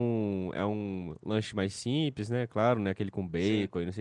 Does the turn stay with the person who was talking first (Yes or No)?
Yes